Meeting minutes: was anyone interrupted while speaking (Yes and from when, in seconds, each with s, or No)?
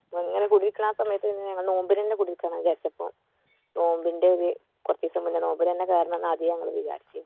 No